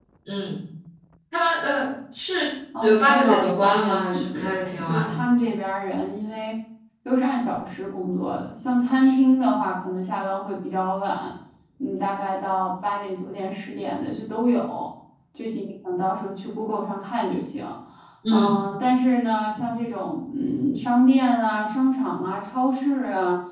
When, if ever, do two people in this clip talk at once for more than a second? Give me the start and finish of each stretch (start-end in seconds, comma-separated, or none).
2.8-5.1